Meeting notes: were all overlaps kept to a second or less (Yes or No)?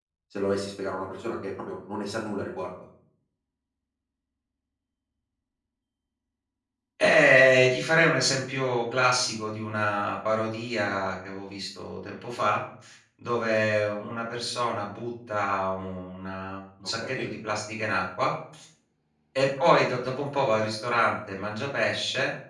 Yes